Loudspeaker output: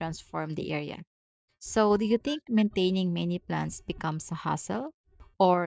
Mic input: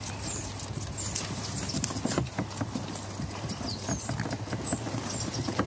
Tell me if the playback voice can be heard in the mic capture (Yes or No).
No